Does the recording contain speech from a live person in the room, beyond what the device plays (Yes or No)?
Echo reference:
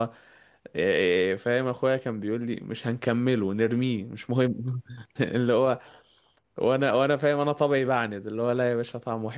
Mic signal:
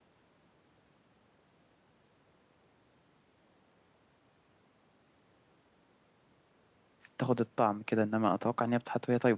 Yes